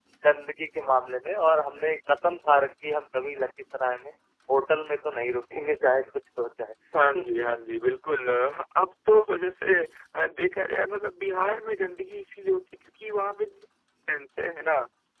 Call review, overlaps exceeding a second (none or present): none